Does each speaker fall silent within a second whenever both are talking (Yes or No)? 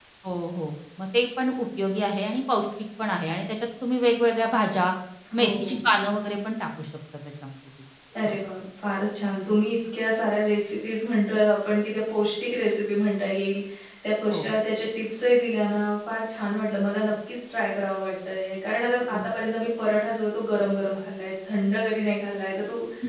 Yes